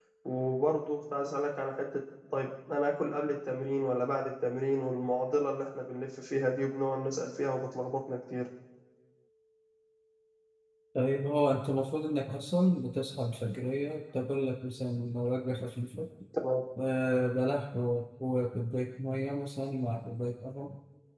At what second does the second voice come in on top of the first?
none

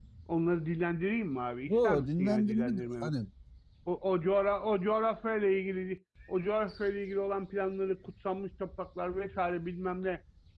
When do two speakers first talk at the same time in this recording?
1.7 s

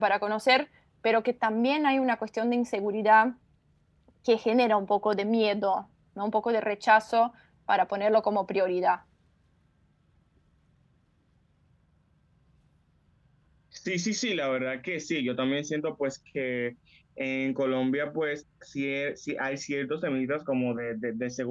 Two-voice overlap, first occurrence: none

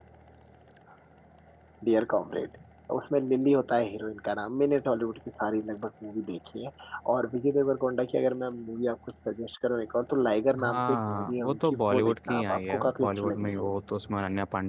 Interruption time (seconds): 10.5 s

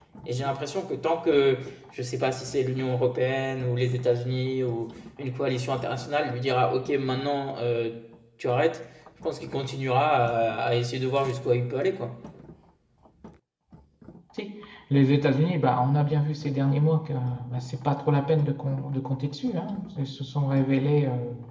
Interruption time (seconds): none

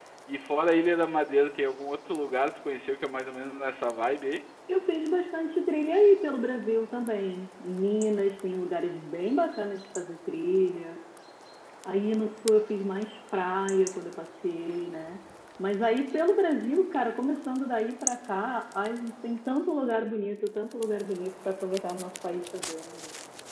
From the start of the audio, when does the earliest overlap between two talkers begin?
none

